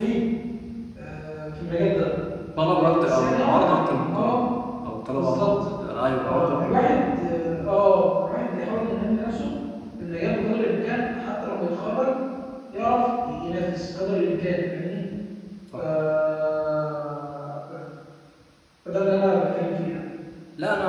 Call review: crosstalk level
present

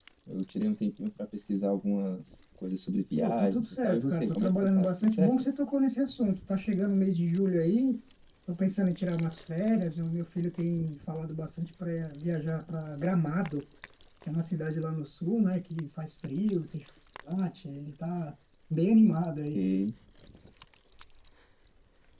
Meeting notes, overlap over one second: present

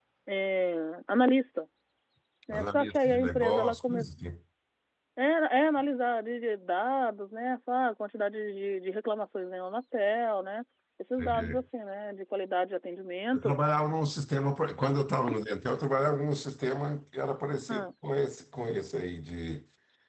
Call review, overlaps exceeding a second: present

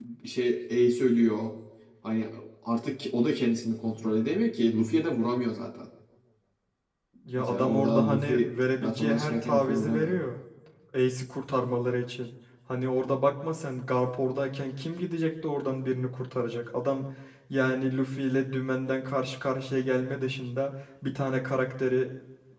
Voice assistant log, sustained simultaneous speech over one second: present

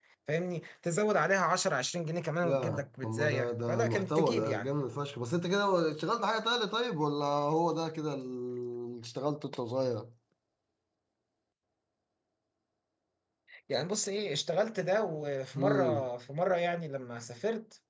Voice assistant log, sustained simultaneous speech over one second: present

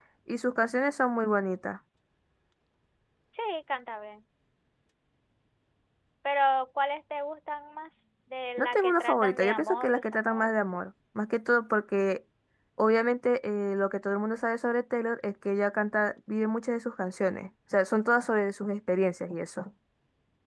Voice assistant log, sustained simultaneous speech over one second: present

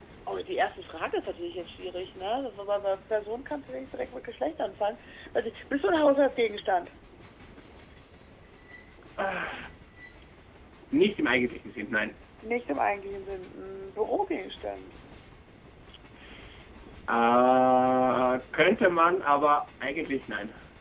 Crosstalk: none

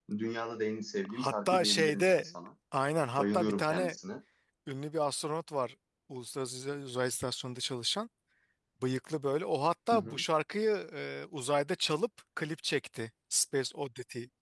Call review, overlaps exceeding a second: present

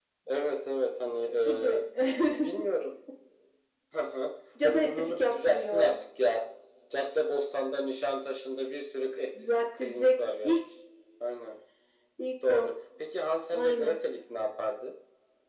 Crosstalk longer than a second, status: present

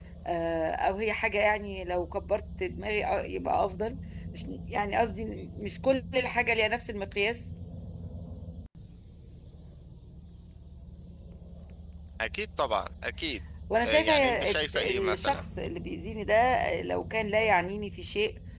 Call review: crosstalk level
present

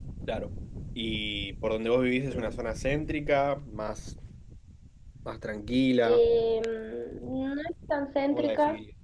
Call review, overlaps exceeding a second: none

